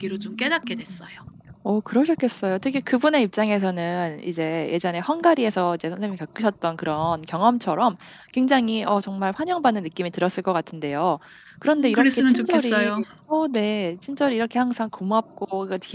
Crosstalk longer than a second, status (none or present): present